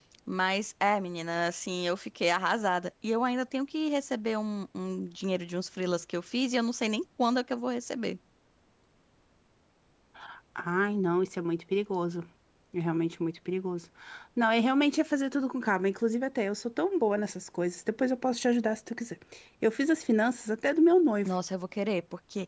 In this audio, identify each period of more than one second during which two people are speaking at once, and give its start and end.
none

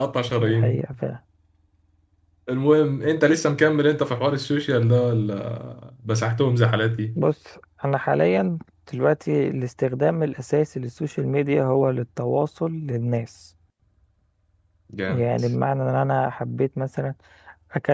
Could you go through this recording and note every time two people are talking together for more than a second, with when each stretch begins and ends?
none

